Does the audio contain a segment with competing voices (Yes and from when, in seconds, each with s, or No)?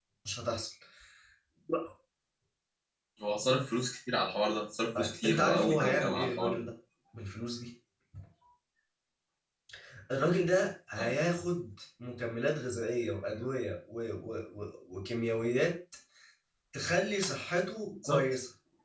Yes, from 5.0 s